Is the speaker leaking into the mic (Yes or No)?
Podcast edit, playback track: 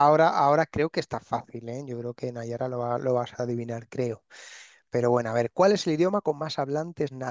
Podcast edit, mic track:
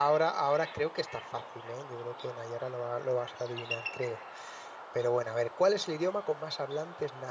Yes